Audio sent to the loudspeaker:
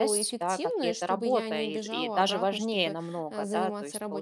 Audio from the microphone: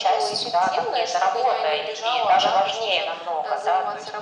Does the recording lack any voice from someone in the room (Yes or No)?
Yes